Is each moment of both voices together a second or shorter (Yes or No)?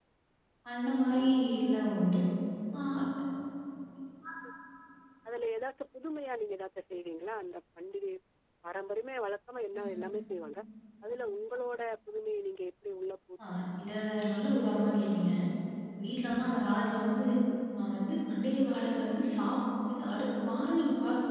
Yes